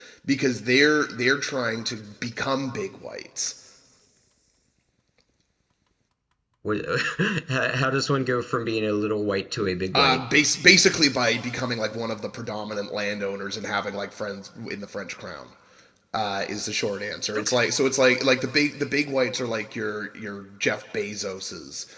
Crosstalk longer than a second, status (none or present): none